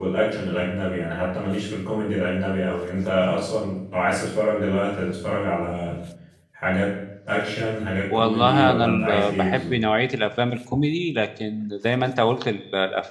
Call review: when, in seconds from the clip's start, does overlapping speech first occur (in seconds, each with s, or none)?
8.1 s